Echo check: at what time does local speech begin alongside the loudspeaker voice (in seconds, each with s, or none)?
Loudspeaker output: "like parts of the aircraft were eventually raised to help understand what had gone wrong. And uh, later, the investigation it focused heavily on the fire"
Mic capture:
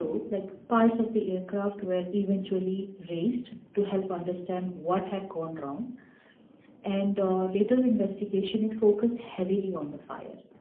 none